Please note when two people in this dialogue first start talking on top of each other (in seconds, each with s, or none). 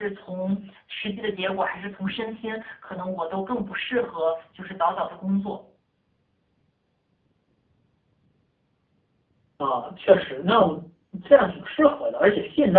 none